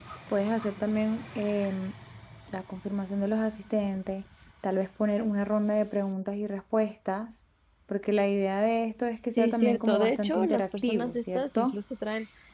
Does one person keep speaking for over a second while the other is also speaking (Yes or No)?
Yes